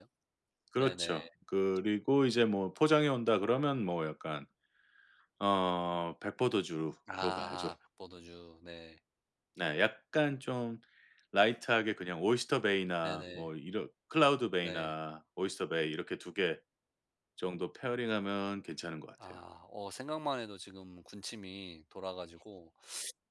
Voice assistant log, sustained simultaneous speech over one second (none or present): none